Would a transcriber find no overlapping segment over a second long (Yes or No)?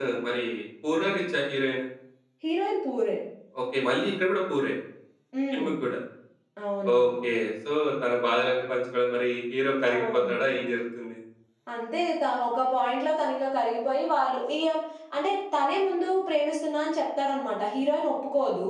Yes